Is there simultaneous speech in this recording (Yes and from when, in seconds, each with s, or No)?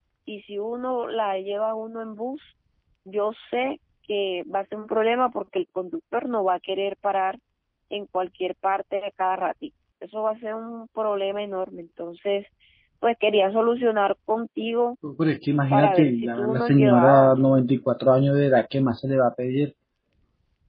Yes, from 15.7 s